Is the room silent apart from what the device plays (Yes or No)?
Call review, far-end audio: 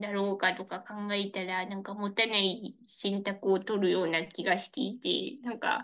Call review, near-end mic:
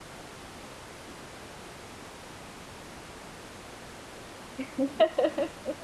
No